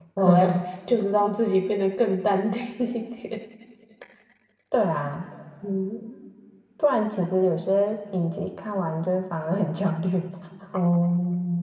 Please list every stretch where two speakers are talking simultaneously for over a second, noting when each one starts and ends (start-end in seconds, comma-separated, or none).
none